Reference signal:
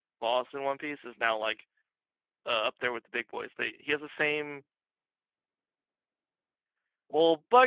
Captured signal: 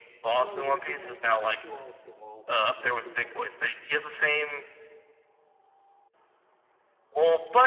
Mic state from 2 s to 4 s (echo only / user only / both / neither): both